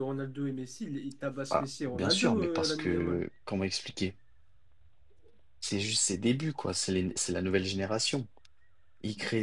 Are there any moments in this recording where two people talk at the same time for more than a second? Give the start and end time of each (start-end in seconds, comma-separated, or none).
1.5-3.2